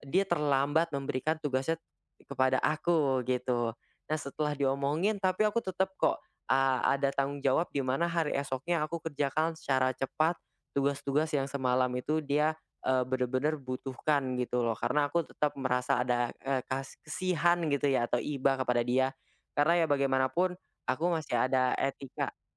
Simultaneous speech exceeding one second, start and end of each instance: none

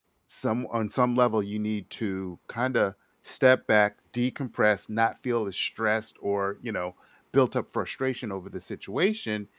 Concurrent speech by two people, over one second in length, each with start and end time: none

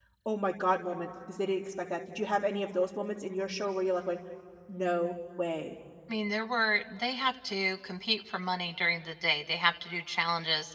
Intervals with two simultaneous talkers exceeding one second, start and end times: none

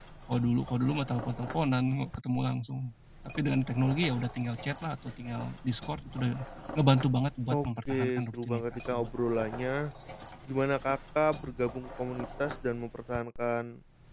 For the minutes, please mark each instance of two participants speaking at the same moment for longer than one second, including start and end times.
7.7-9.1

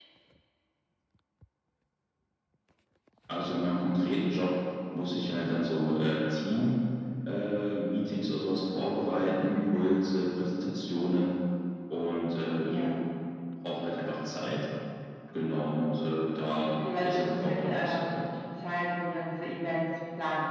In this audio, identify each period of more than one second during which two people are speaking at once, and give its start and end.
16.7-18.2

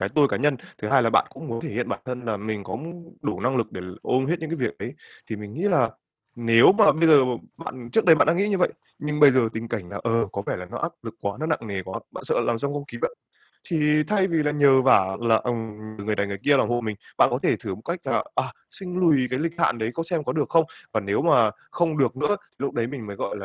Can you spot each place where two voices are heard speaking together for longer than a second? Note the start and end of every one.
none

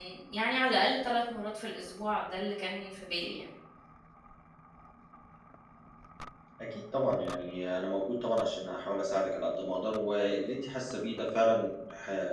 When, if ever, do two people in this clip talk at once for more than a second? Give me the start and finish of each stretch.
none

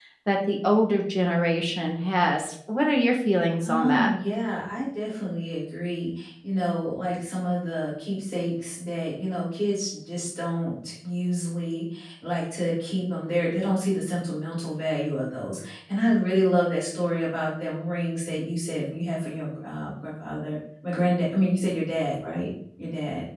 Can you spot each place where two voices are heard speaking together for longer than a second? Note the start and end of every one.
none

